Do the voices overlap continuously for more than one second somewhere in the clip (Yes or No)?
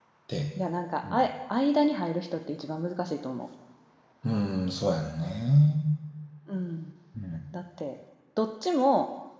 No